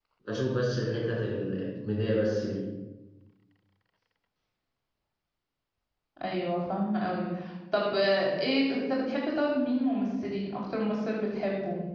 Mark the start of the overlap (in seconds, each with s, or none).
none